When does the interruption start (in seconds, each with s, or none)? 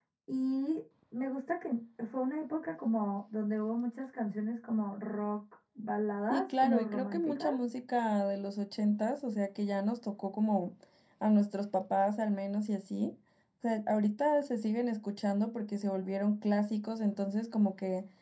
6.3 s